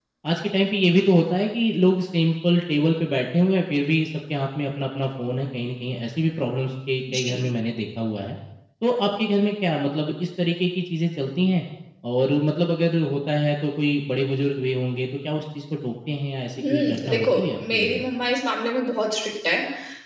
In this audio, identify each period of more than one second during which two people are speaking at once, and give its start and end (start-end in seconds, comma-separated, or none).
16.7-18.0